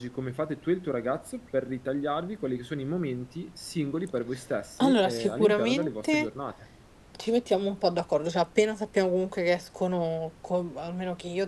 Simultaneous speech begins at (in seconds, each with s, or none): 4.8 s